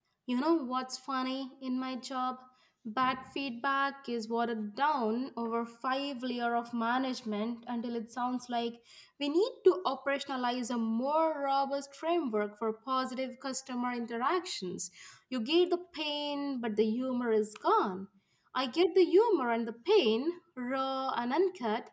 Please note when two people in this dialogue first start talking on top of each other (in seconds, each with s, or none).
none